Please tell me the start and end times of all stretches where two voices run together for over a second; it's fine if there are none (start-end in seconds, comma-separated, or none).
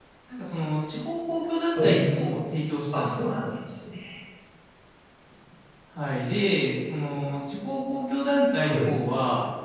none